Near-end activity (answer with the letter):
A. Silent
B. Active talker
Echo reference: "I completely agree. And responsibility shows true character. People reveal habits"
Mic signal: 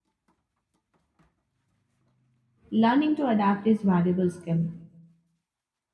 B